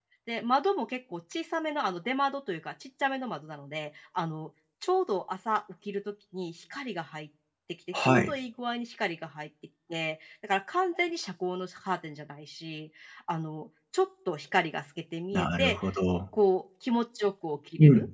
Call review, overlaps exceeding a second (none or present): none